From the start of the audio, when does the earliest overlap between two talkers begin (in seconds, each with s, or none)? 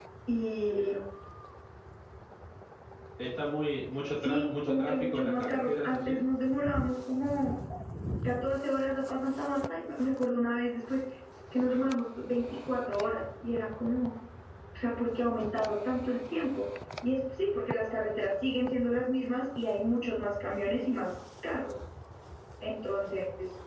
4.2 s